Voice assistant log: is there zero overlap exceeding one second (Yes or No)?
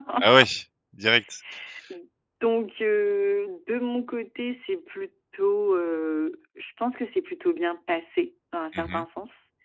Yes